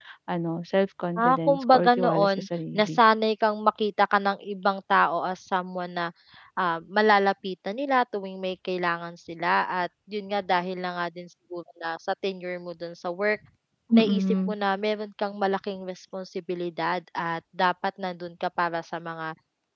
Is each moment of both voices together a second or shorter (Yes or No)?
No